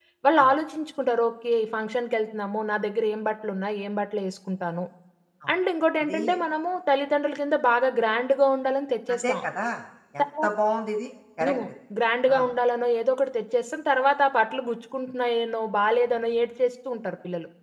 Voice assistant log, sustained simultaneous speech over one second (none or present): none